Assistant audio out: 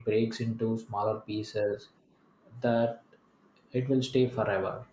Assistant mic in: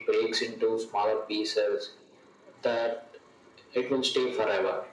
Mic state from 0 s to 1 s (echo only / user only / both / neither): echo only